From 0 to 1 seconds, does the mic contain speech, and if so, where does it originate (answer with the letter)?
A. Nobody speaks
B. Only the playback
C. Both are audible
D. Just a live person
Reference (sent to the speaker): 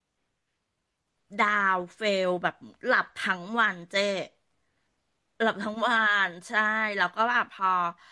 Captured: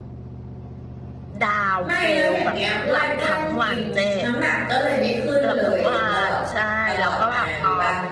A